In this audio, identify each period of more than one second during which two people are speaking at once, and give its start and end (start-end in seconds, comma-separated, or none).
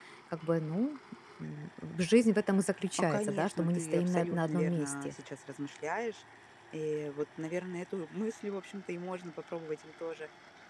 2.9-5.1